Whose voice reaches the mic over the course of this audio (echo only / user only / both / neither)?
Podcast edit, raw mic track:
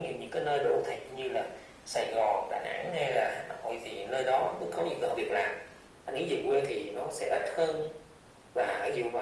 echo only